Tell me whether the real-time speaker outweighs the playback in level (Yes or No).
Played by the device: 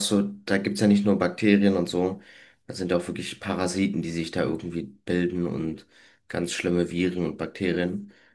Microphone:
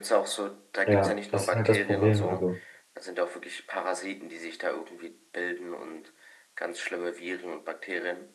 Yes